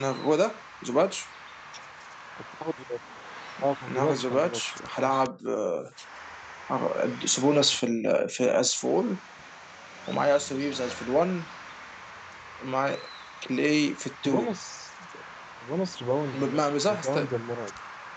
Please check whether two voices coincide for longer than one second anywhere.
Yes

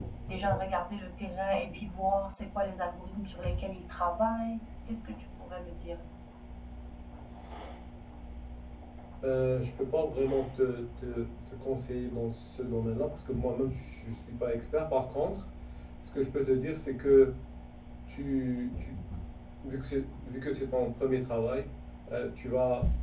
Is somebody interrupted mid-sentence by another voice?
No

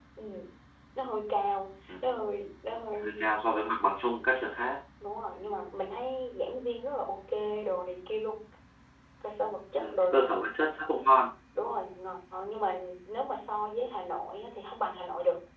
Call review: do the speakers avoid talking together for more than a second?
Yes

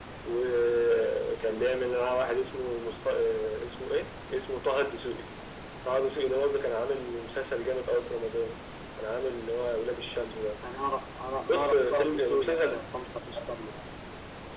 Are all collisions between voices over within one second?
No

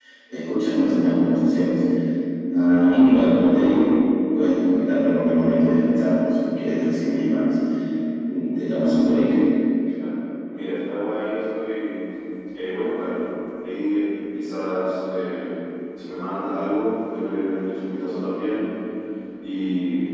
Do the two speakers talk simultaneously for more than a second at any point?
No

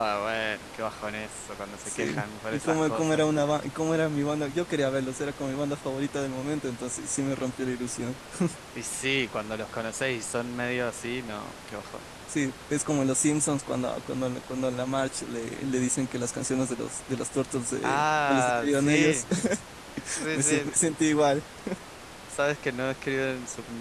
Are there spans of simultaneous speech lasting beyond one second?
Yes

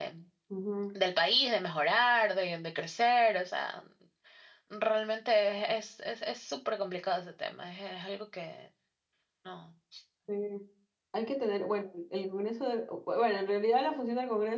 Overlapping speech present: No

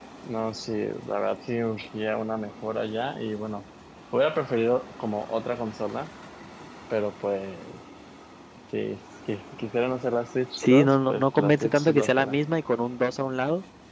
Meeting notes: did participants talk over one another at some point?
Yes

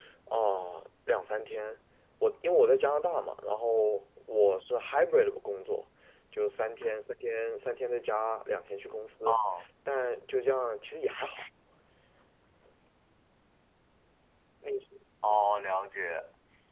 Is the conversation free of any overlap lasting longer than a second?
Yes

